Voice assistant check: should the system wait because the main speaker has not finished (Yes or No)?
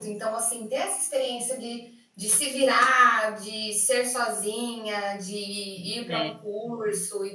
Yes